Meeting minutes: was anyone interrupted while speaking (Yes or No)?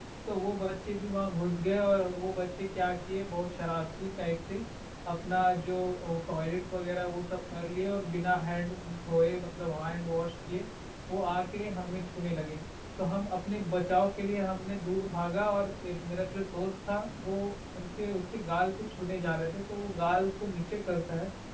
No